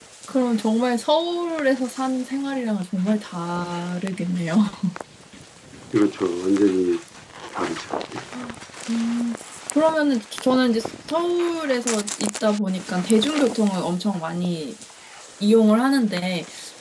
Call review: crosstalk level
none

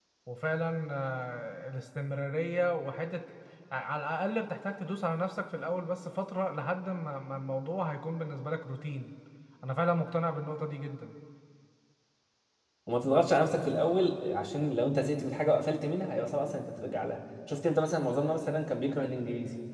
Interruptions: none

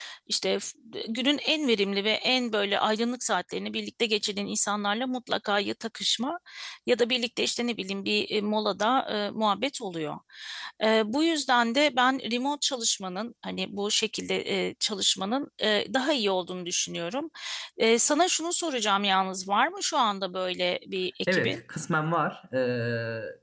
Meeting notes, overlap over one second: none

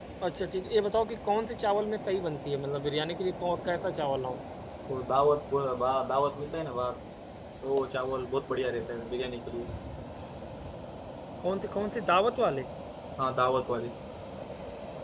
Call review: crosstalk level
none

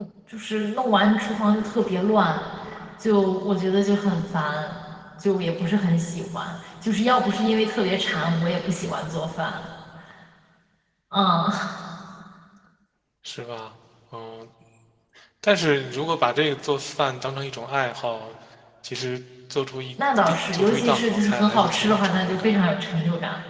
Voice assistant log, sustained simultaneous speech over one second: present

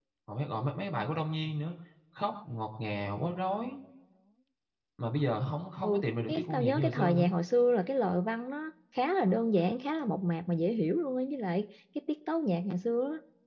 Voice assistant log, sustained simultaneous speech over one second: present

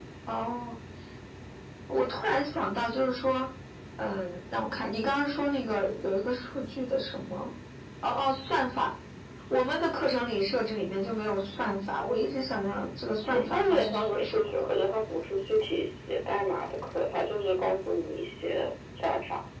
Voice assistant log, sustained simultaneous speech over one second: present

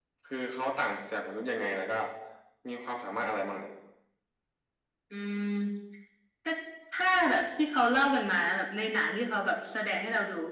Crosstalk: none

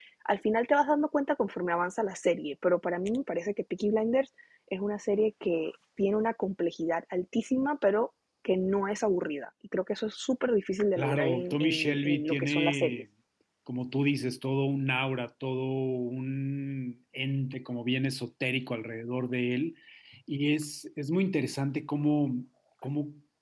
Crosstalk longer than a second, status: present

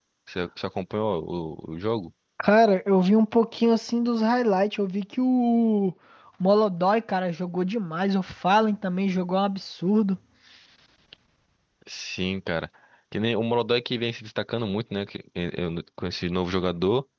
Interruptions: none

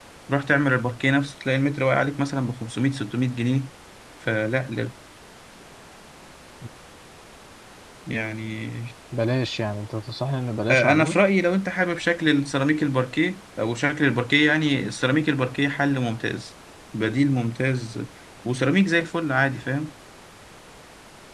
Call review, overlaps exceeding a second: none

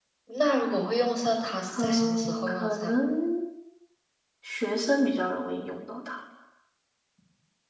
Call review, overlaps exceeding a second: present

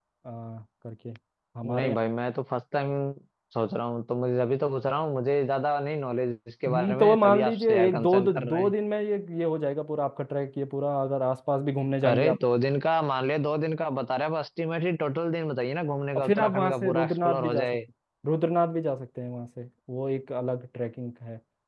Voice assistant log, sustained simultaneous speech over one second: present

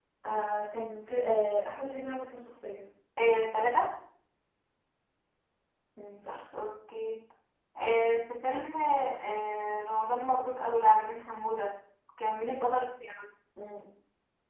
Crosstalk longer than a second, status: none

